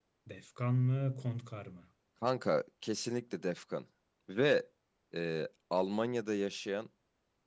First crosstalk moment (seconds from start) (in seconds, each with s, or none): none